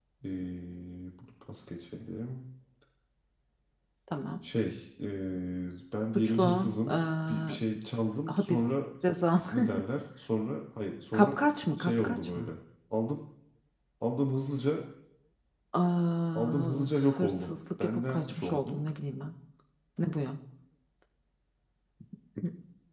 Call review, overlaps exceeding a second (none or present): present